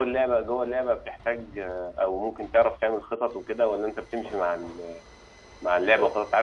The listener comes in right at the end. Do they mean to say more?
No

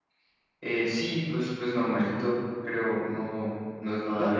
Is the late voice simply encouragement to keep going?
No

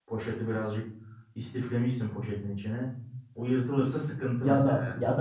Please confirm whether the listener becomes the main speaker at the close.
Yes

